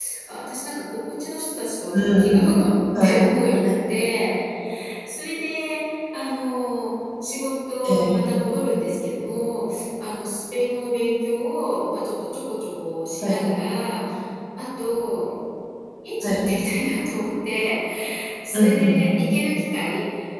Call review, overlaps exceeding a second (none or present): none